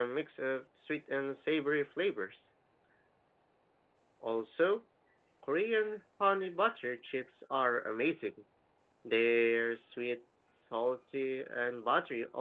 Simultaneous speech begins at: none

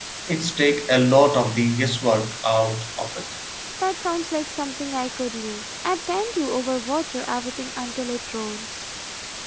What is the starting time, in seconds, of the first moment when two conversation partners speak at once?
none

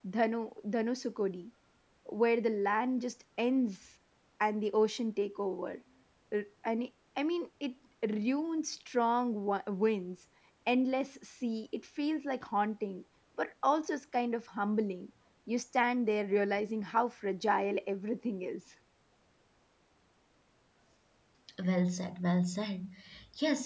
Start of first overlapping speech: none

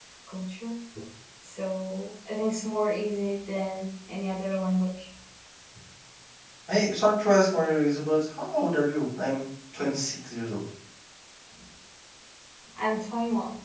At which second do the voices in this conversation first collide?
none

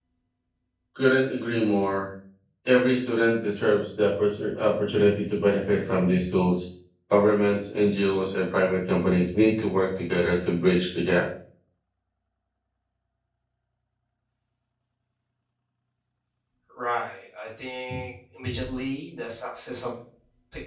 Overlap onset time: none

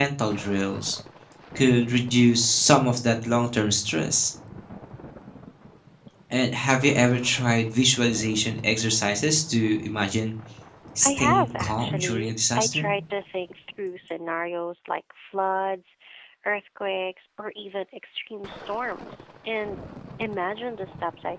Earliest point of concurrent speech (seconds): 11.0 s

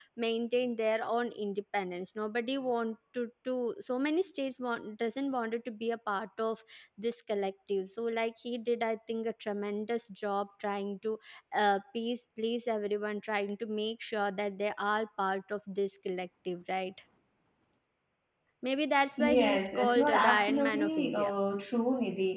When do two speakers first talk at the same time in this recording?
19.2 s

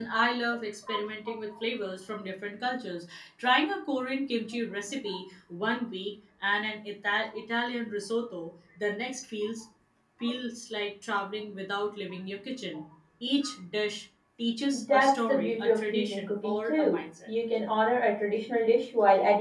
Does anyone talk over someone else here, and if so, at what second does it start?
14.7 s

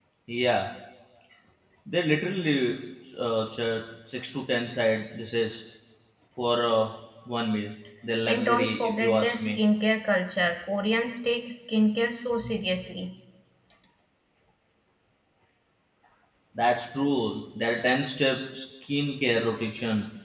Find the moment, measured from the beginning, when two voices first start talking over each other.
8.3 s

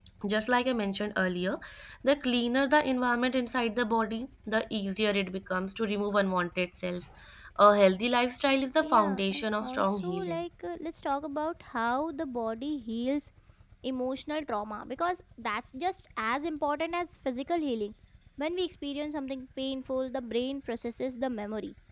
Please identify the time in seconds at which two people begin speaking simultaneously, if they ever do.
8.8 s

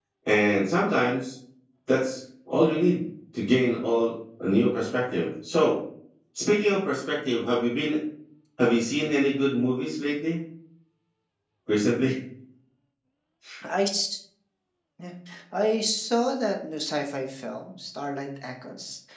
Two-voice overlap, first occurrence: none

